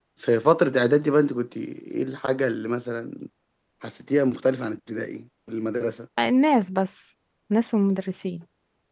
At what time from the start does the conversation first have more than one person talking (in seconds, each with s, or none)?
none